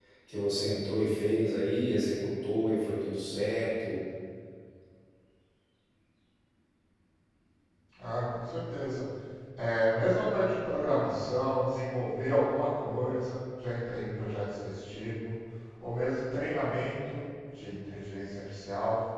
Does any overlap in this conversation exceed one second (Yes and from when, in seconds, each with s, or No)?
No